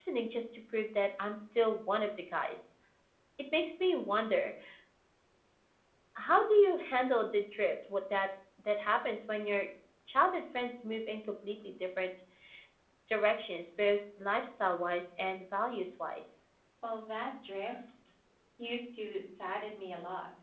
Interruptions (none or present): none